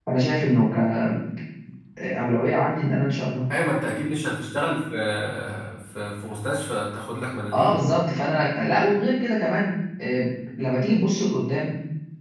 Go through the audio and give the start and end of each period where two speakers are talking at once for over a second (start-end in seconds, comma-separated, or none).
none